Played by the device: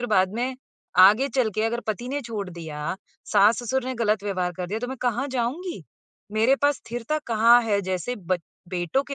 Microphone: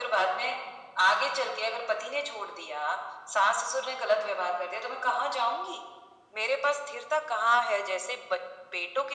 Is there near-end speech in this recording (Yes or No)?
No